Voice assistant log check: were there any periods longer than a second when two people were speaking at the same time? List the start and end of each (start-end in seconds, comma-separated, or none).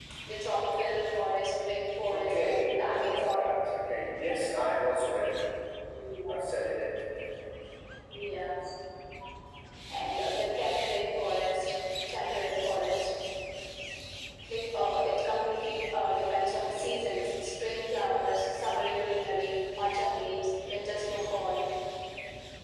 2.1-3.5